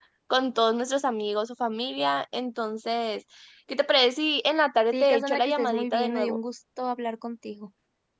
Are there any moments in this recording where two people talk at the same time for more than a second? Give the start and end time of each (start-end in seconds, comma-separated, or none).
4.9-6.4